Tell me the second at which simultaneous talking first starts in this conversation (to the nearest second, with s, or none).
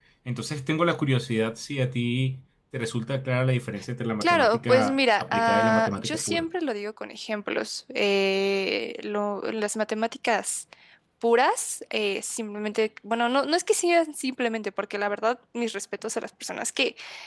4 s